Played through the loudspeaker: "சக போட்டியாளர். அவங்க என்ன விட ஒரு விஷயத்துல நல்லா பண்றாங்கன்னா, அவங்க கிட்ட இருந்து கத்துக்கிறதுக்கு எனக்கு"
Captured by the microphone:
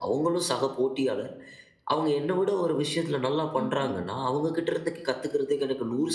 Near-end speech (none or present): present